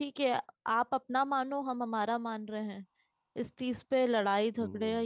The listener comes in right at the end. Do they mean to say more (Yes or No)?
No